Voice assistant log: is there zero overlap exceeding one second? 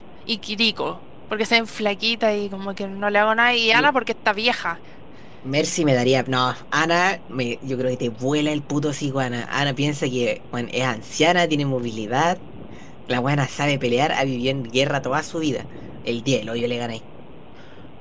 Yes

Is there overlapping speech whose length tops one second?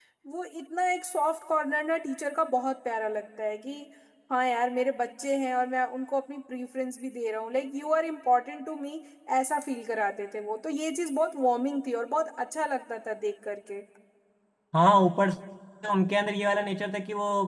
No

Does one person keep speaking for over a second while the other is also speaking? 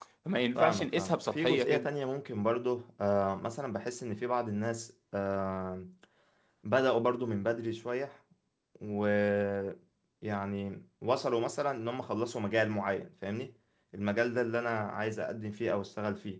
Yes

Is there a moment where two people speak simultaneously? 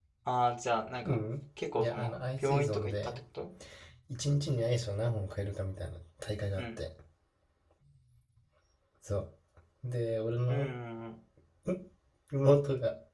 Yes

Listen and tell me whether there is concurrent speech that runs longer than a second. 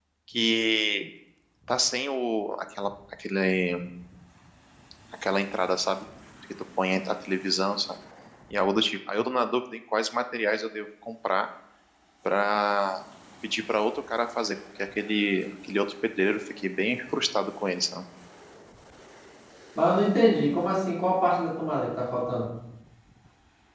No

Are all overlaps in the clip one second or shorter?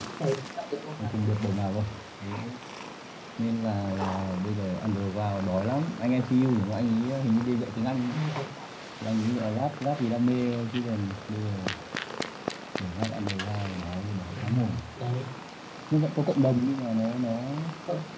Yes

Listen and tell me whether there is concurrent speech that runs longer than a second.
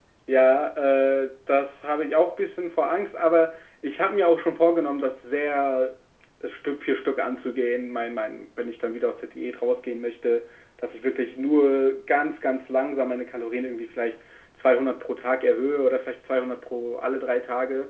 No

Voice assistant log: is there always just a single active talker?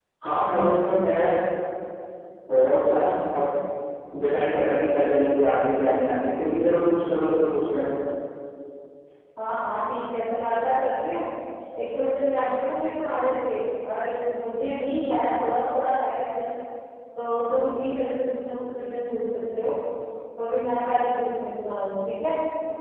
Yes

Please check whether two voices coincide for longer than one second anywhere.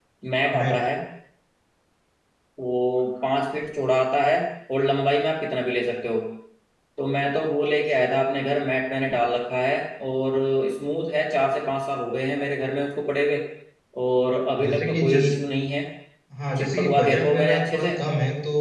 Yes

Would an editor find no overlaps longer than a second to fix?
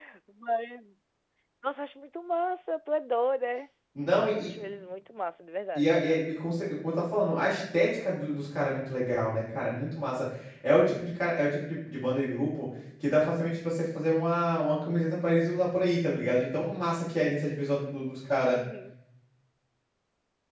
Yes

